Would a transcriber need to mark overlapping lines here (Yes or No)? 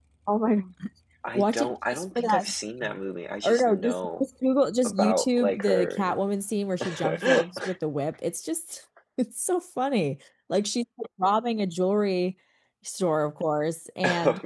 Yes